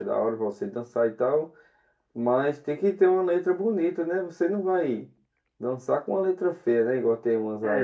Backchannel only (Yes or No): No